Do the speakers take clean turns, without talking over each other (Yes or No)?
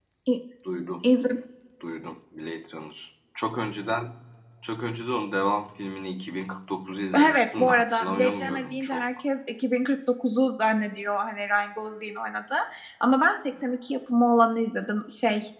No